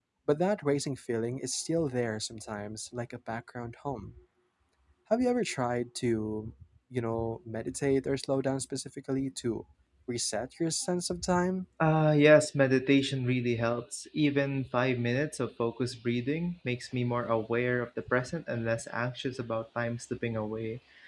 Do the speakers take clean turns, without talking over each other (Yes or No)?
Yes